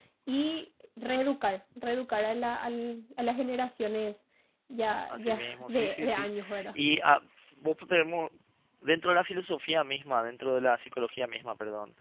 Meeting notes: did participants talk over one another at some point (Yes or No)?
Yes